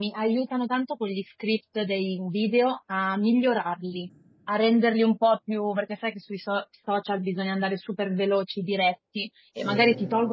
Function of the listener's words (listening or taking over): listening